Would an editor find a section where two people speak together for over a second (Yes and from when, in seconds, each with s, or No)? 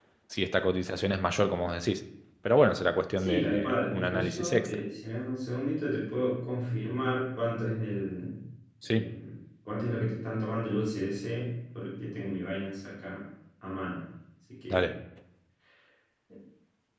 Yes, from 3.2 s